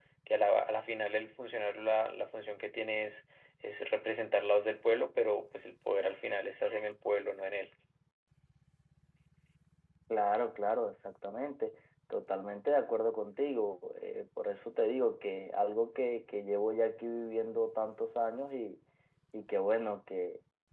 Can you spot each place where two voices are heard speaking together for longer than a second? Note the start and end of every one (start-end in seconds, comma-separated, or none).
none